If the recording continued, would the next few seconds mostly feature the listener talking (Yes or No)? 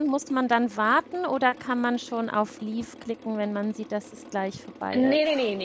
Yes